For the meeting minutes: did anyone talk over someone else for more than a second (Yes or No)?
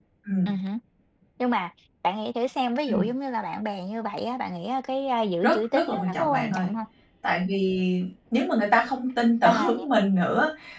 Yes